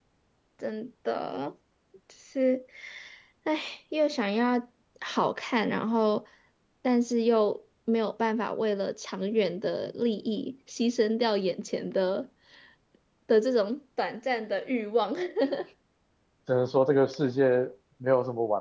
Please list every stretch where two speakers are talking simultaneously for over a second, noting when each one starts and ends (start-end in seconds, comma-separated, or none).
none